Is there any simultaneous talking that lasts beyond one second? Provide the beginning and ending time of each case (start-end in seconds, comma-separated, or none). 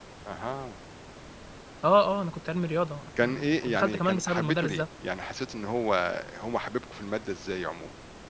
3.2-4.8